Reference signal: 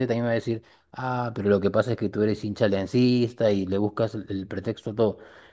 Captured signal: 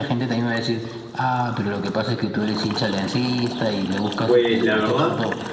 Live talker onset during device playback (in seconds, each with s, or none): 4.2 s